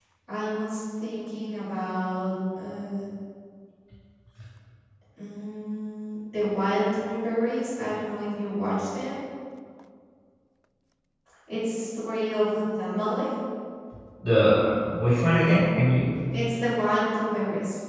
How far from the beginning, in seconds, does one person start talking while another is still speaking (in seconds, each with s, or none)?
none